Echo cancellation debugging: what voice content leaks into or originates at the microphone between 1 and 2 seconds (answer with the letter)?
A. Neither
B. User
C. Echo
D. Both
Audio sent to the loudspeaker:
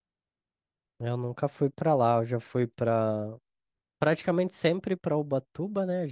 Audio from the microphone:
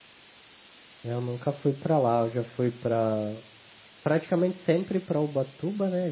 C